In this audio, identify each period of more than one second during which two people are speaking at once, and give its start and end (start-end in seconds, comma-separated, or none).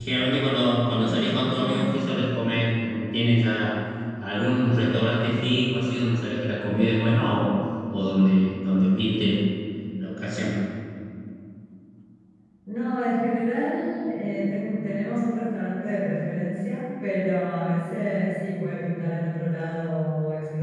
0.9-2.2